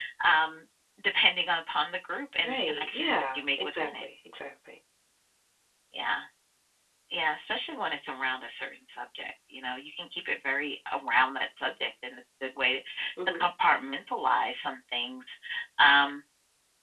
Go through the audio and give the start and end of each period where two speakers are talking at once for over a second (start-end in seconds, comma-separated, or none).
2.4-3.9